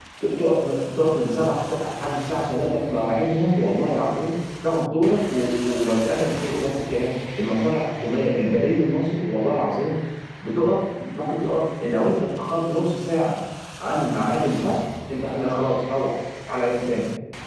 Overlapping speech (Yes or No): No